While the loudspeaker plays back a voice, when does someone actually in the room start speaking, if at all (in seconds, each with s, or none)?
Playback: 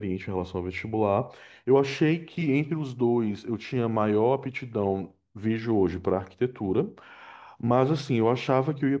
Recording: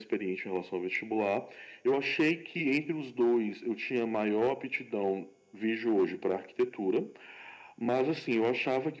none